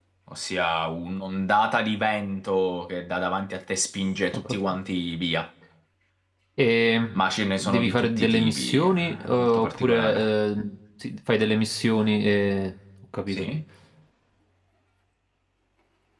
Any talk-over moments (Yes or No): Yes